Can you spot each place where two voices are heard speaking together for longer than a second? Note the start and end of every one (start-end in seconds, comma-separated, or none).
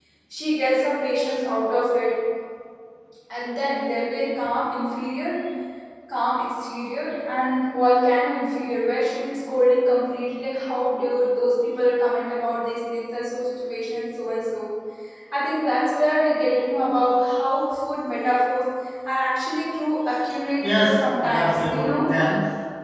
20.6-22.1